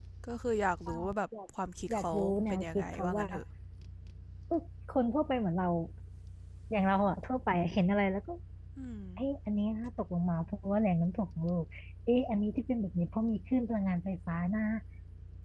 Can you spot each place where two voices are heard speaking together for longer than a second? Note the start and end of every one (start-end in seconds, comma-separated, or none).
1.9-3.2